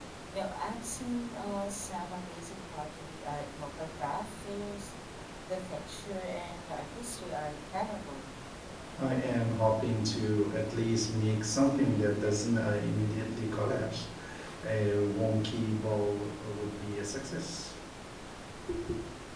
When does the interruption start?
none

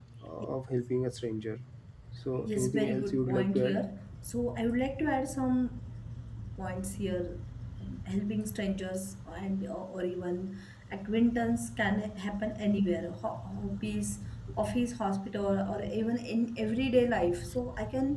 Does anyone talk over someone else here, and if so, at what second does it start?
2 s

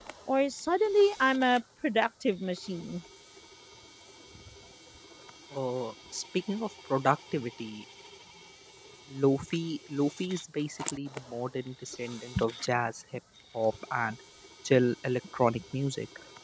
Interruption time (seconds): none

